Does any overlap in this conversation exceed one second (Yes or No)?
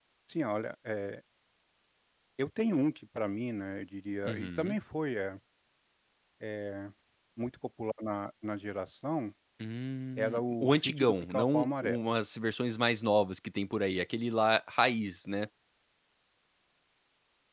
Yes